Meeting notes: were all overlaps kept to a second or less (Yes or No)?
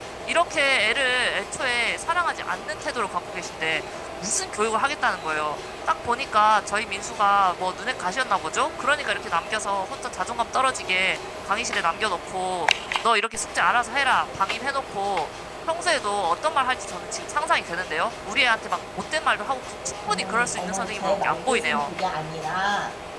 No